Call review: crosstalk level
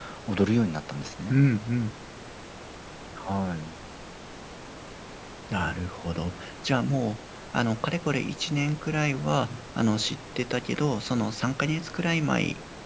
none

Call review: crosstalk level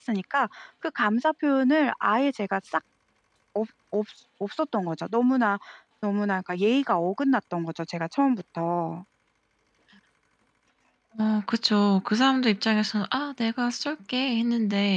none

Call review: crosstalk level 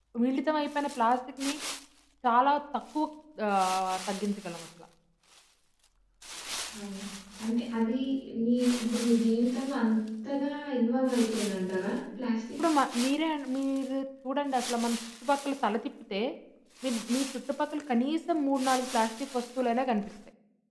none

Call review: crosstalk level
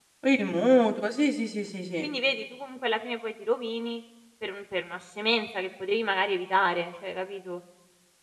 none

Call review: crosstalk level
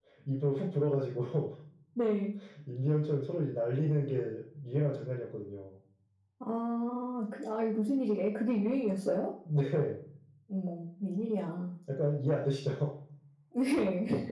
none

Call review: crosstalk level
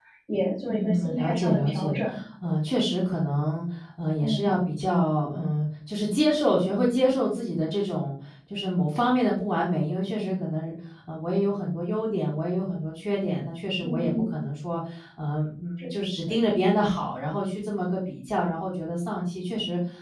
present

